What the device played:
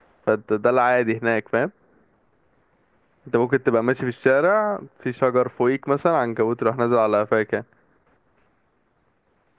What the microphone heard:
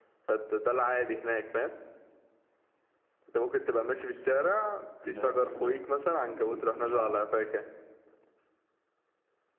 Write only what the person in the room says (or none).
ده ده كده أم، يعني فاهم